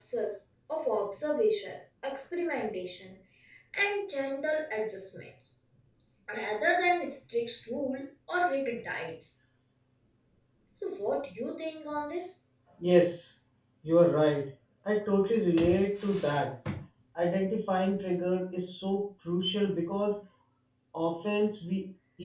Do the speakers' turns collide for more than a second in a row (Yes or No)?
No